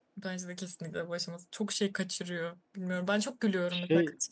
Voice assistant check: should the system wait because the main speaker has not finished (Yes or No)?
Yes